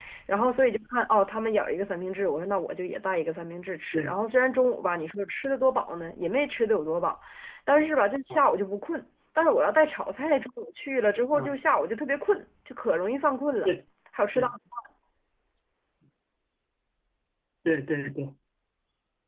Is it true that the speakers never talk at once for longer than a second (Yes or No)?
Yes